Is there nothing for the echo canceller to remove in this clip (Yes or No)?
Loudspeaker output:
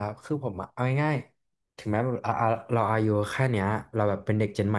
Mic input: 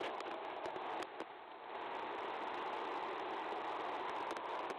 Yes